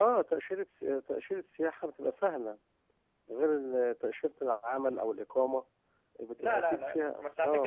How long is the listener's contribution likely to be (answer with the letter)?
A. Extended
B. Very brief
A